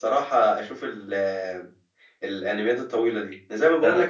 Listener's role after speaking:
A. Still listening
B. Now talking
A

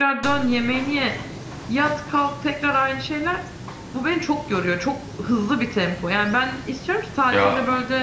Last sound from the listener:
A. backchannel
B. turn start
A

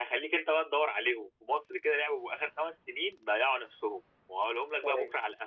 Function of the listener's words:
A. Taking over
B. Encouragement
B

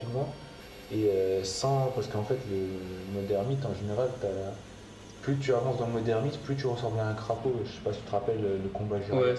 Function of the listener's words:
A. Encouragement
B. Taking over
B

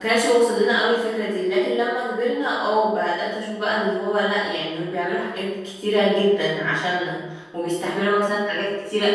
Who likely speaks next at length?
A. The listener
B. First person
B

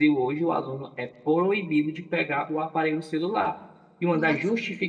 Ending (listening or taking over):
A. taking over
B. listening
B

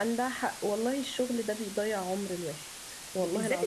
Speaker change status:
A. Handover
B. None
A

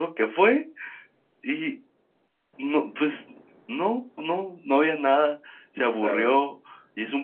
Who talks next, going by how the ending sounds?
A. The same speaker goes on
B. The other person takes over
A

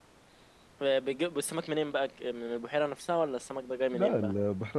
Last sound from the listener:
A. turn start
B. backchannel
A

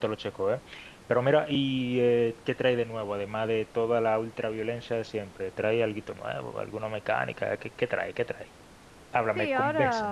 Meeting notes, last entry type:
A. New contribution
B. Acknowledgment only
A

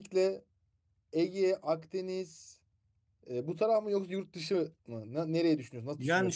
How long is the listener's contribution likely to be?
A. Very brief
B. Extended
B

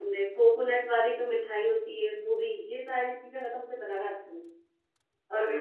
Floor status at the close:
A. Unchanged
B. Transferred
A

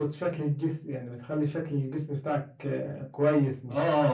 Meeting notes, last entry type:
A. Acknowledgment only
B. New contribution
A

